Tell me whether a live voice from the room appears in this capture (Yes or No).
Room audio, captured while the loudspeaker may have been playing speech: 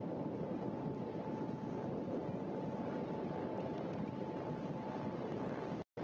No